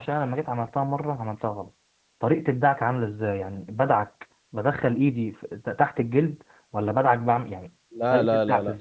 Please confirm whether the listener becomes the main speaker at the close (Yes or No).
Yes